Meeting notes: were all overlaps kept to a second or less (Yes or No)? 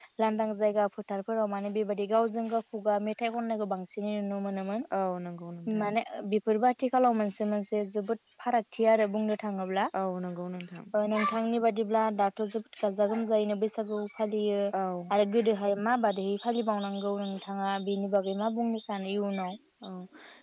Yes